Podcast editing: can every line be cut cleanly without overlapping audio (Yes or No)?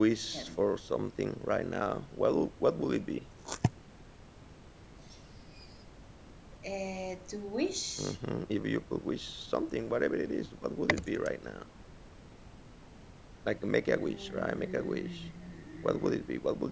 No